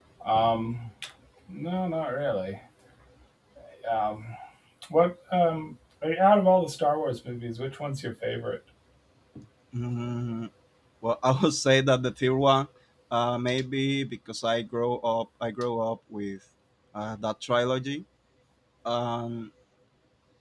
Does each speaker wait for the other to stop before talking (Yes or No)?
Yes